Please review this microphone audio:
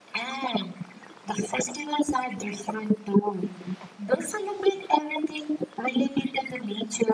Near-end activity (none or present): none